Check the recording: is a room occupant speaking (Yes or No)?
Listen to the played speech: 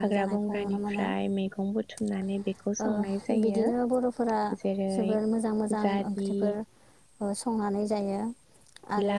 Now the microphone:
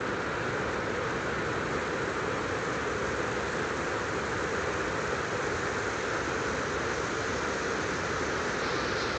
No